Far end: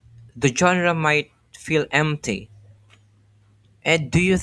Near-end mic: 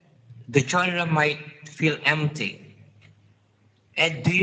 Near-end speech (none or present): none